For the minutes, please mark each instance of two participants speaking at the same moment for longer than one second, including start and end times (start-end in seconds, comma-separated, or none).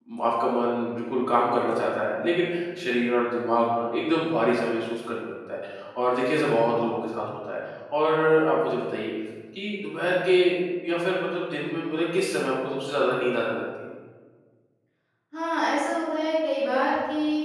none